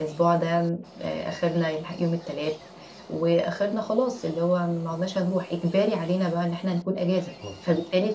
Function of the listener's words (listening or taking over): listening